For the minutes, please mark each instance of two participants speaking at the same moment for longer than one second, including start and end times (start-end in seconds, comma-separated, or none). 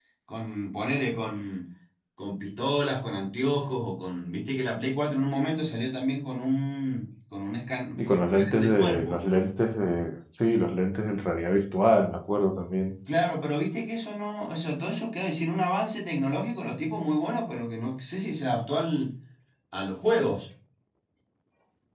8.0-9.2